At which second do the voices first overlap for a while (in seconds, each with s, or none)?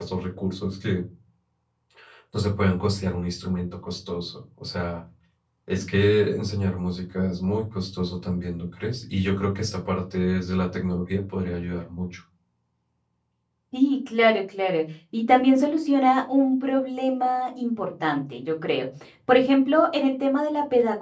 none